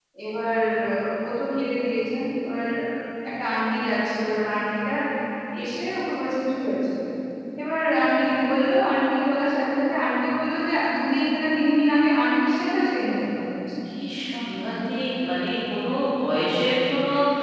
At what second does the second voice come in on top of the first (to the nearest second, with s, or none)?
none